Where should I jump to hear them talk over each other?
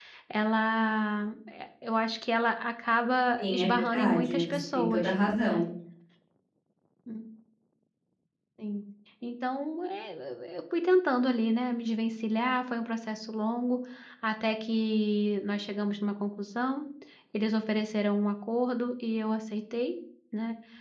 3 s

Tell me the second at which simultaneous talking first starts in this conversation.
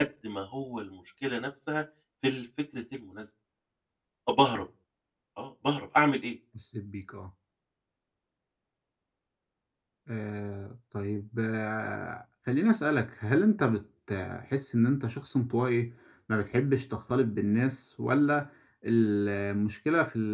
none

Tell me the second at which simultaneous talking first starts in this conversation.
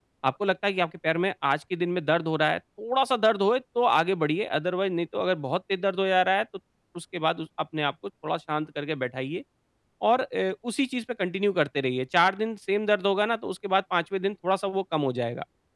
none

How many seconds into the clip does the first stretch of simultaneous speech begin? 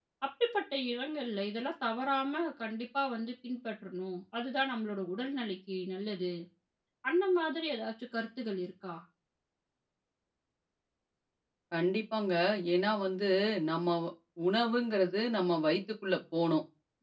none

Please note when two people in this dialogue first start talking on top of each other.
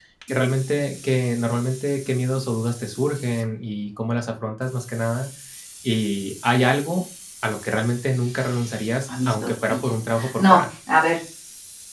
9 s

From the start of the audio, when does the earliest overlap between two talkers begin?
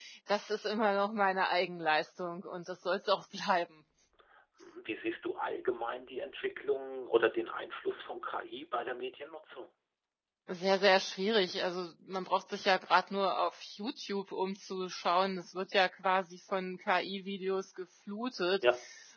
none

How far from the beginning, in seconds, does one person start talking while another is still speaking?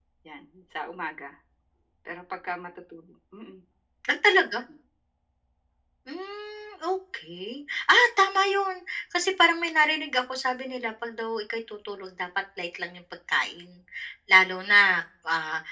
none

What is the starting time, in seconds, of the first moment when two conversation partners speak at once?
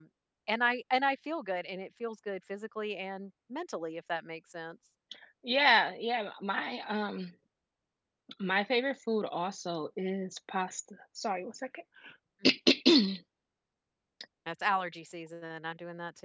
none

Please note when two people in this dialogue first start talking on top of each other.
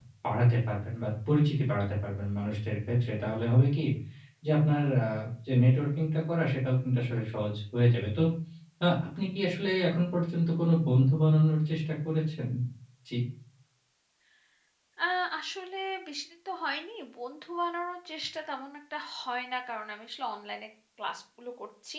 none

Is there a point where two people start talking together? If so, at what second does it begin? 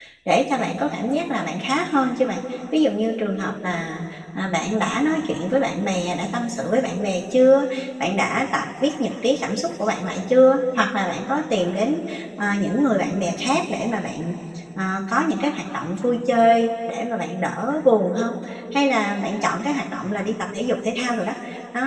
none

